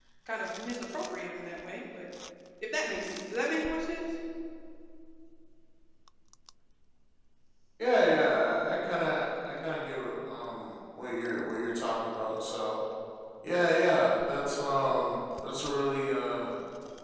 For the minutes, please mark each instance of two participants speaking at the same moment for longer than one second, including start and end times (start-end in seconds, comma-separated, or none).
none